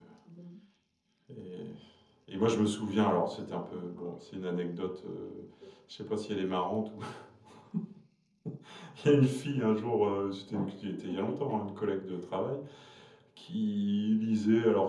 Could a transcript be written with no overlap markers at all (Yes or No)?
No